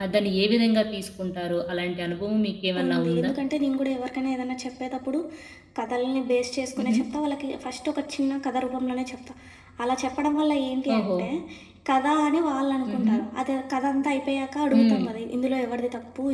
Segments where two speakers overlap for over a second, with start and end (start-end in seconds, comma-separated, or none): none